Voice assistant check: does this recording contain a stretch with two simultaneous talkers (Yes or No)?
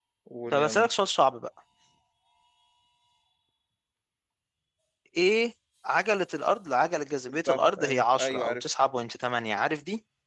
Yes